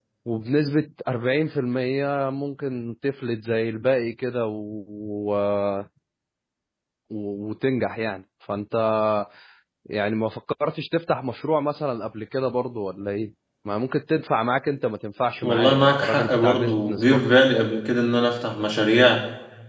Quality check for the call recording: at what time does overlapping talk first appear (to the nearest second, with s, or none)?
15 s